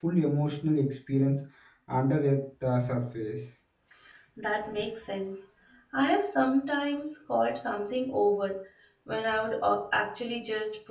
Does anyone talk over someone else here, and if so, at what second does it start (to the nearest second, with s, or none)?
none